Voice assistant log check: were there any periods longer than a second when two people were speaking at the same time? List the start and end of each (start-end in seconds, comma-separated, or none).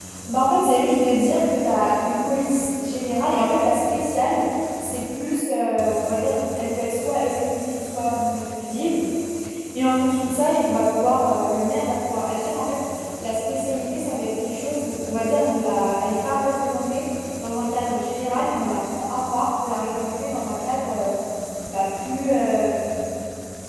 none